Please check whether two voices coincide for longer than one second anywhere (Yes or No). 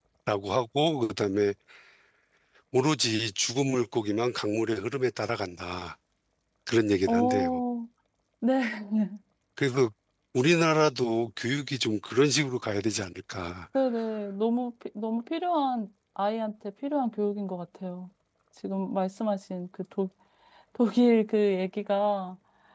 No